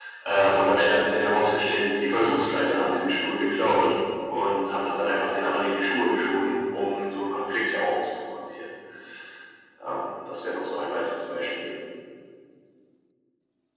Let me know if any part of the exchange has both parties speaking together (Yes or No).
No